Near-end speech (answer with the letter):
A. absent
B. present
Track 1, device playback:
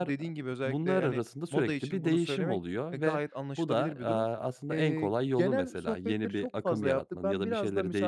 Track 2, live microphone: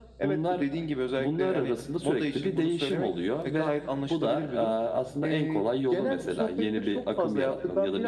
A